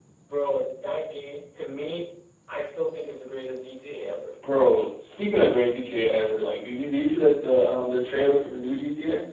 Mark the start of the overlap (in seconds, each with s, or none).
none